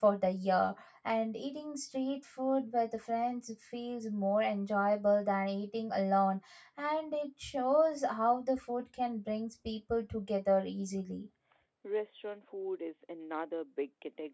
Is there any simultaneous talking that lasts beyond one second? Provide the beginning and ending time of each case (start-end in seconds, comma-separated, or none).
none